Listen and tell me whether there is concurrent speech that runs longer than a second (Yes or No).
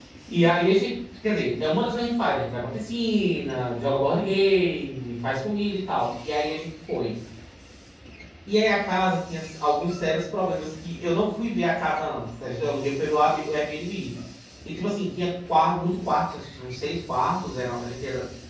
No